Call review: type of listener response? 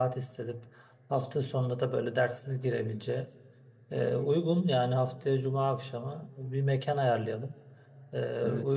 listening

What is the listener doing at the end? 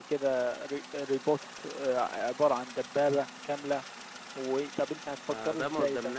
taking over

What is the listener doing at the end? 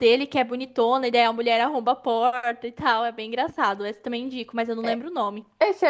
taking over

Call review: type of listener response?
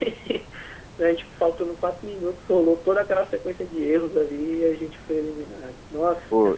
taking over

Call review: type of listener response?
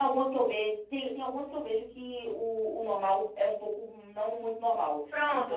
taking over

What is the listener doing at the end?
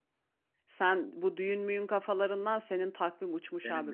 taking over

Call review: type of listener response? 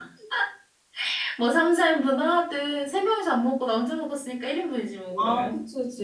taking over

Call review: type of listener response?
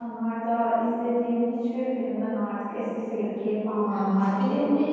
taking over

